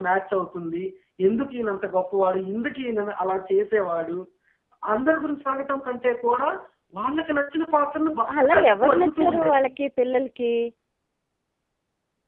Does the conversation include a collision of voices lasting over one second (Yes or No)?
Yes